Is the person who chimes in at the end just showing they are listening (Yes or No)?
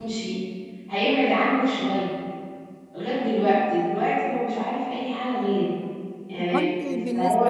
No